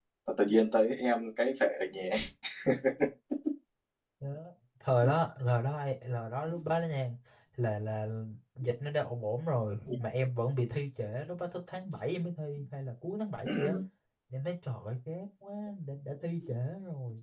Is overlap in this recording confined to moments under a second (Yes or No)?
Yes